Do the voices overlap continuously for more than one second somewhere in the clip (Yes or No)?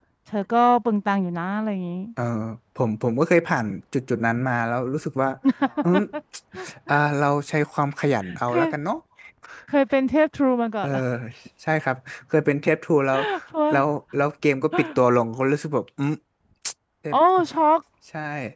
No